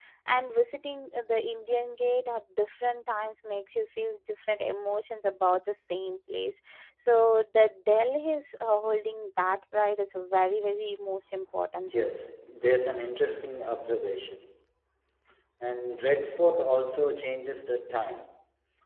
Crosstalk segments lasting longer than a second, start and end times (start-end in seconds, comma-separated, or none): none